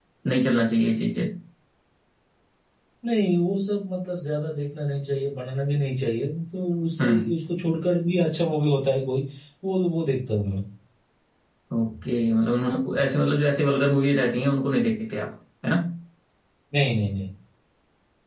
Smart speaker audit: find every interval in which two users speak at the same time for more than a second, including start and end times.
none

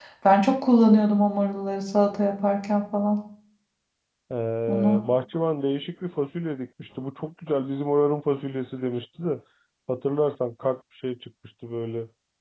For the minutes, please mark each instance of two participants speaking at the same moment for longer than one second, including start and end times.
none

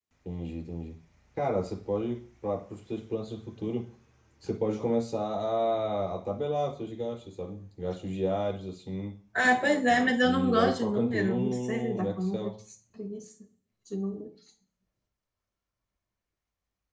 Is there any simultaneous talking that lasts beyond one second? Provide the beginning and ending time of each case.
10.2-12.5

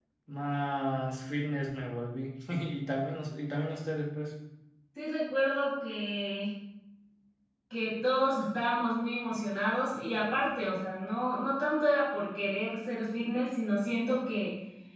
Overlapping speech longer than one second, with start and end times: none

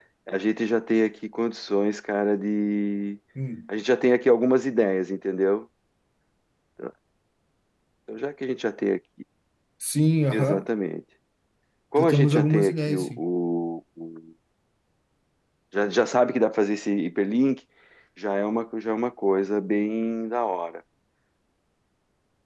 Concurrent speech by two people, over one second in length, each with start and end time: 12.0-13.2

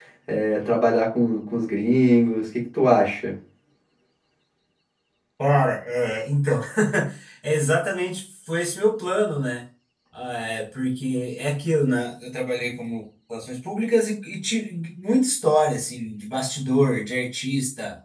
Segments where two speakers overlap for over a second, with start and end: none

